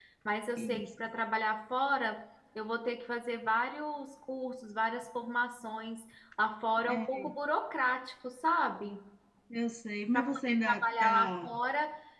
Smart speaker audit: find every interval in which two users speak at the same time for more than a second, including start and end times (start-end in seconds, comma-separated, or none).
10.1-11.6